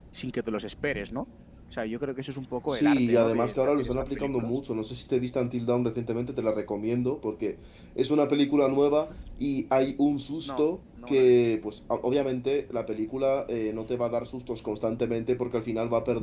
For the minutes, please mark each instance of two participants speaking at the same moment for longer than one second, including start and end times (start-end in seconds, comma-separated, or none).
2.7-4.6